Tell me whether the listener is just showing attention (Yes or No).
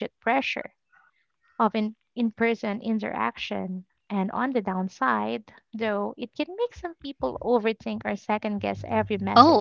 No